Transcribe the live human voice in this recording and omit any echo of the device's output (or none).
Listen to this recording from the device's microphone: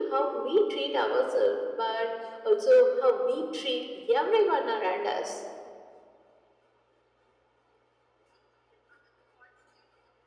none